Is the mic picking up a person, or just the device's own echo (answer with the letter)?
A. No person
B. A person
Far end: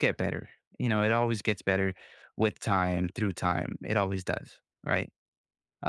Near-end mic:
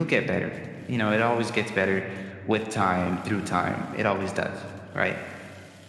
A